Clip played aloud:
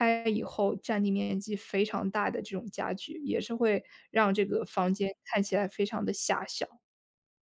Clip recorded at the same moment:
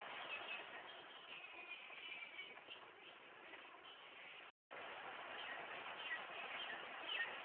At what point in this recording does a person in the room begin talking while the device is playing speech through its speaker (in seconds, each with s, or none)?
none